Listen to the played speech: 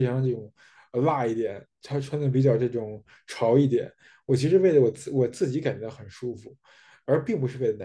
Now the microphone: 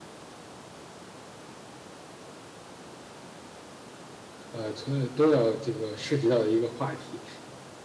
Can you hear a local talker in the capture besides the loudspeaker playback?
Yes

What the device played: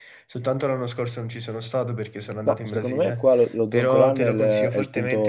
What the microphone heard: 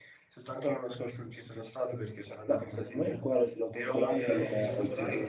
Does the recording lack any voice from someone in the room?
No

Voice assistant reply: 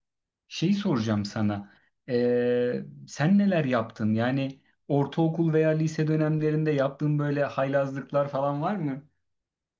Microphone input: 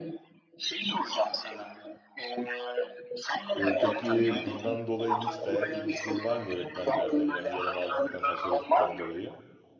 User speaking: Yes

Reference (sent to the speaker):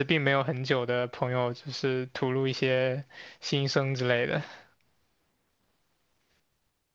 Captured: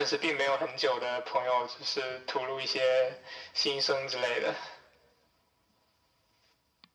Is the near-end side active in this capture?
No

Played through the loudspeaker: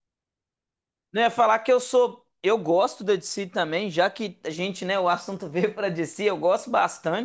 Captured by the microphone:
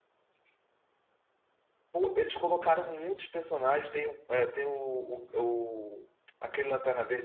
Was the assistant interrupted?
Yes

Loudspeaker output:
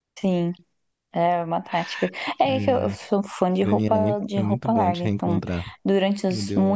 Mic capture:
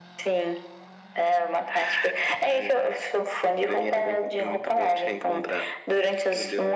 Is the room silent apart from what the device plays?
Yes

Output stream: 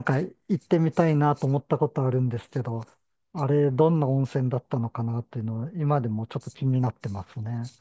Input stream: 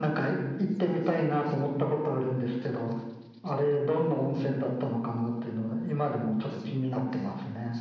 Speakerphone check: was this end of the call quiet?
Yes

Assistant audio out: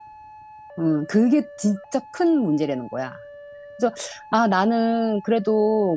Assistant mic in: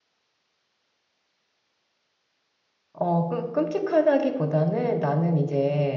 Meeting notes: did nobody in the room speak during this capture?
No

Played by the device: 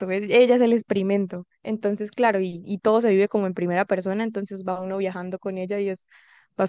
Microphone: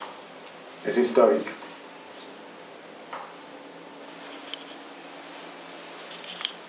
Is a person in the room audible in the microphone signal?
Yes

